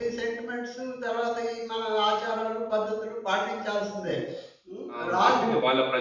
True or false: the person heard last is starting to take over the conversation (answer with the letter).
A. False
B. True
B